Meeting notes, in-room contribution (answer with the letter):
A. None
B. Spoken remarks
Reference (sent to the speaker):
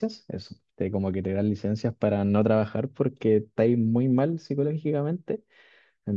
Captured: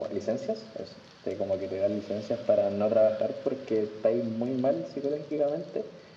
A